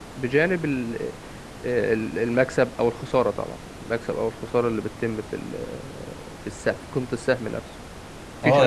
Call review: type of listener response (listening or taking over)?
taking over